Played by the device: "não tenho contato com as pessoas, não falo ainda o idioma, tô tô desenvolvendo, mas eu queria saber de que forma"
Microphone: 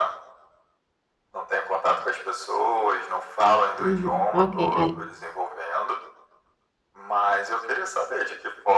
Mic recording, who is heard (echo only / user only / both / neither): both